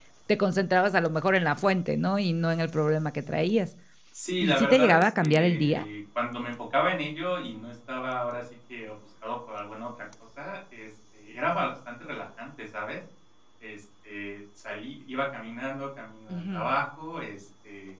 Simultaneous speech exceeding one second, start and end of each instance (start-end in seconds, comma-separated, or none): 4.4-5.8